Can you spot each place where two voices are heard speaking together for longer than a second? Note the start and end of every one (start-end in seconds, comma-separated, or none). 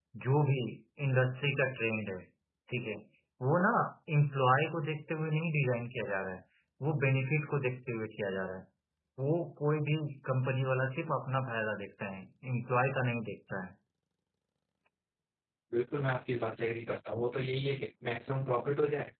none